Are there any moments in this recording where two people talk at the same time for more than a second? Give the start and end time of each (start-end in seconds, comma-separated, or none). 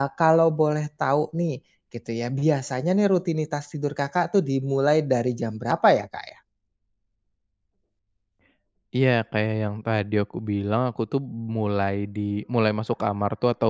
none